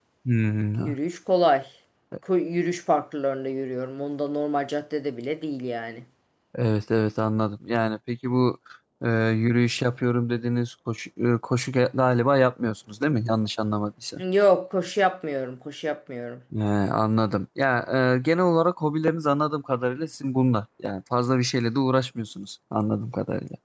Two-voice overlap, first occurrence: none

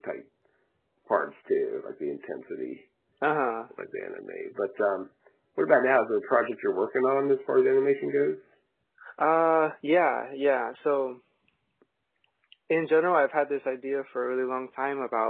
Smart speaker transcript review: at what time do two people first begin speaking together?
none

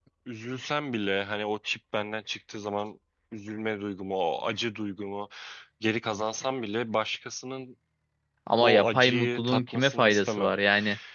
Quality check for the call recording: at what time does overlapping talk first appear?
8.6 s

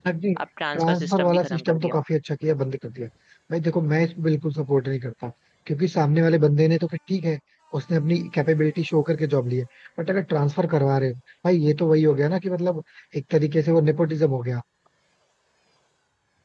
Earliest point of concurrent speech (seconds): 0.7 s

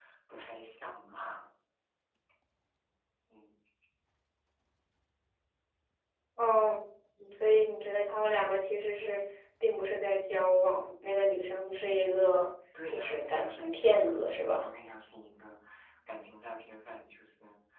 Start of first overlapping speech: 12.7 s

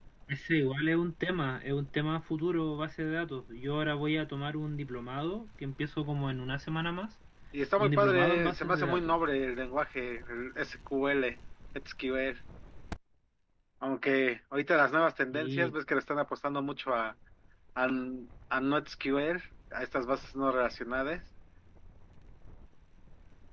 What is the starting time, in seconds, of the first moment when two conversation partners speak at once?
7.8 s

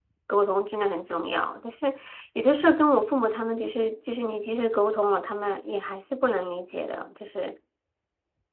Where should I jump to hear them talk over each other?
none

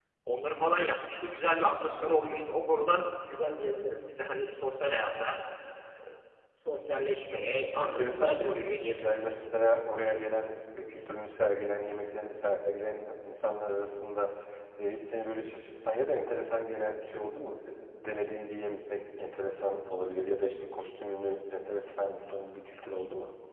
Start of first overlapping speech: 7.8 s

